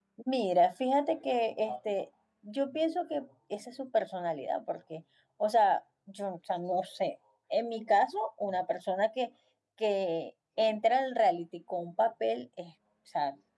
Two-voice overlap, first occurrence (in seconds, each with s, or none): none